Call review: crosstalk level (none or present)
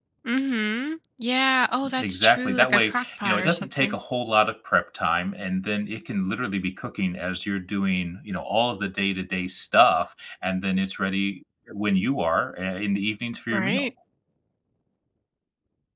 present